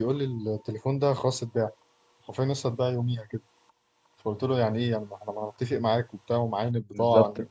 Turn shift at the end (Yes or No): Yes